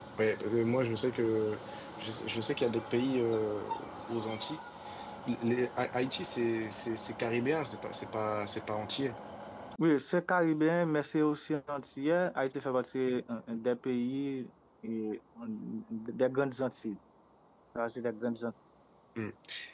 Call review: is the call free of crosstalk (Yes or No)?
Yes